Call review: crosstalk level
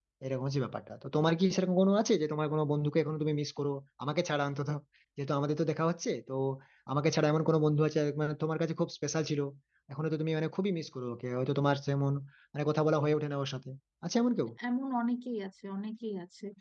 none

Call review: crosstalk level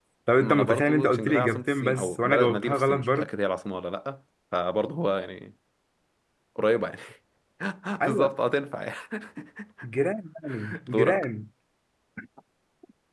present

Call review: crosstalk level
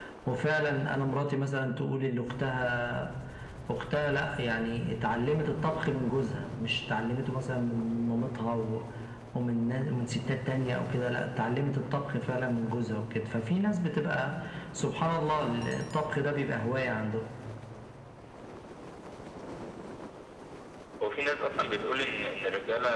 none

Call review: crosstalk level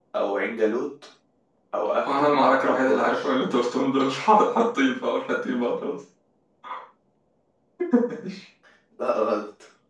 present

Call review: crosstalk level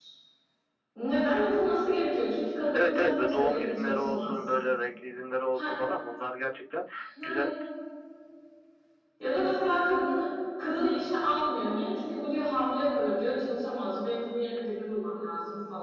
present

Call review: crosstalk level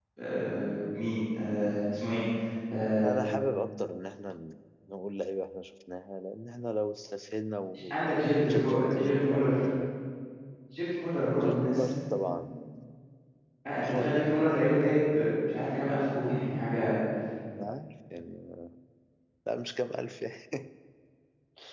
present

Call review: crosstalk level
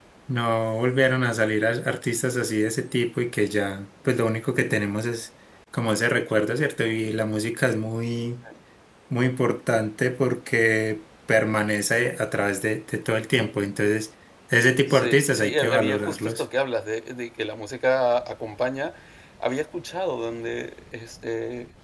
present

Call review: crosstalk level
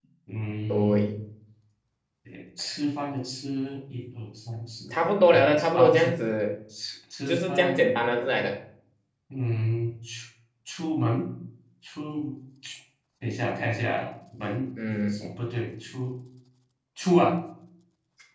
present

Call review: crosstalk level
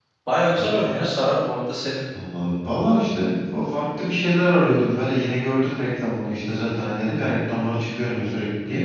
none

